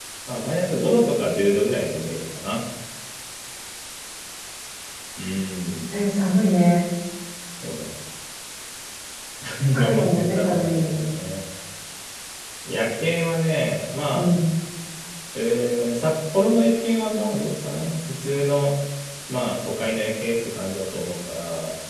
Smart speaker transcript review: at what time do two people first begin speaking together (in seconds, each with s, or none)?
9.7 s